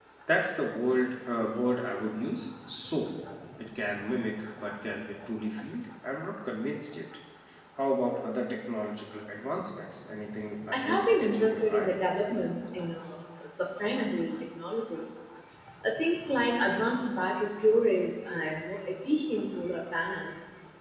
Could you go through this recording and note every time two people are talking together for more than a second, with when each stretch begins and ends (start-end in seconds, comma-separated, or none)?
10.7-12.0